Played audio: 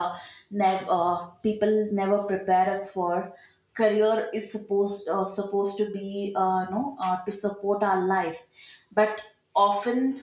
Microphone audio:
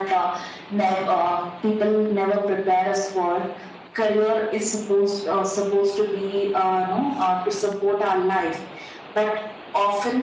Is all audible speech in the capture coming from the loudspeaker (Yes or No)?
Yes